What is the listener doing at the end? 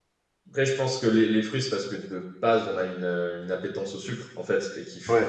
listening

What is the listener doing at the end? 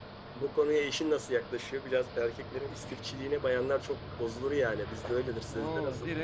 taking over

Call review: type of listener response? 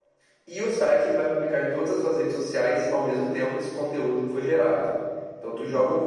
listening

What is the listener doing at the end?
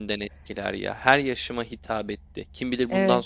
listening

